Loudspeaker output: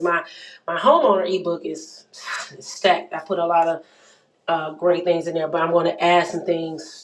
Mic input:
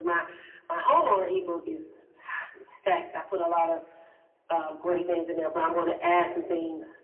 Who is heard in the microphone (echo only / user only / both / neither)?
echo only